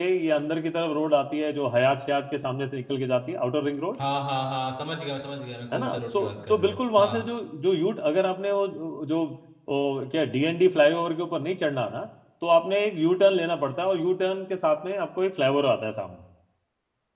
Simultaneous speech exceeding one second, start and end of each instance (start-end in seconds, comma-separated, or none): 5.7-7.2